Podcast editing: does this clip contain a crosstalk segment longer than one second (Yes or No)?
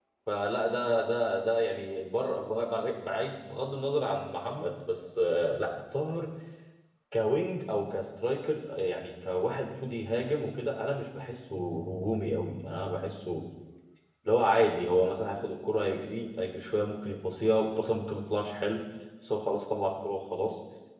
No